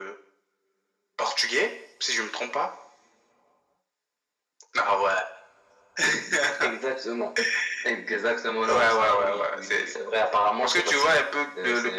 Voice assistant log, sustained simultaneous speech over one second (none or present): present